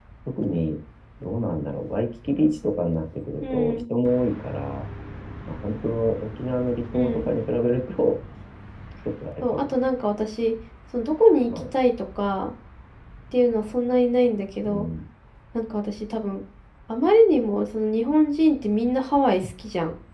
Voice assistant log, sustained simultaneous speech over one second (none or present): none